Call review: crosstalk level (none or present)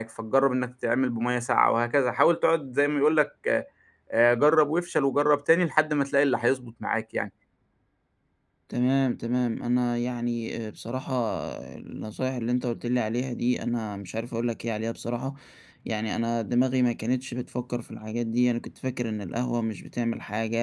none